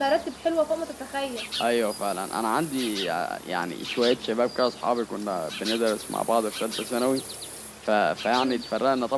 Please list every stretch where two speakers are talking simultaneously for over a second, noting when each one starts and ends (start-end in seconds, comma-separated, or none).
none